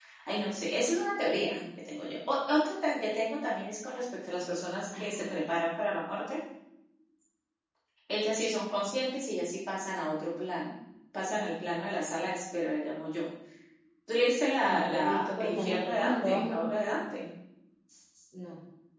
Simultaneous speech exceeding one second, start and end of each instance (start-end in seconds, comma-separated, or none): 14.7-16.9